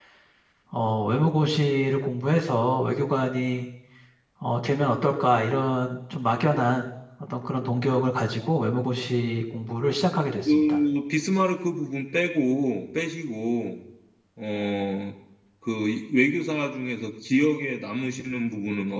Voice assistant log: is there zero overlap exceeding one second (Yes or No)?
Yes